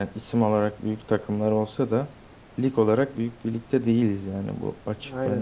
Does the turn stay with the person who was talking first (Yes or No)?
No